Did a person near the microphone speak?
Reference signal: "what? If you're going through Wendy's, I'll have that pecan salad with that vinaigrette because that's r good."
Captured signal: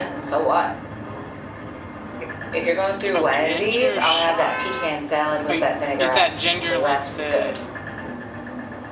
Yes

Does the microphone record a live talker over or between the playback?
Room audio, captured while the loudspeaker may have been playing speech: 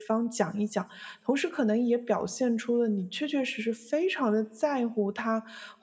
Yes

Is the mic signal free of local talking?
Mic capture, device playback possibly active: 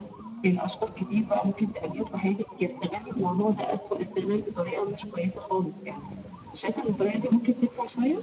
Yes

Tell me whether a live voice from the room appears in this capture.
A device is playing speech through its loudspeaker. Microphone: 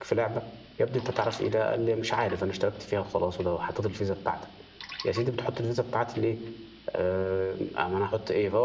Yes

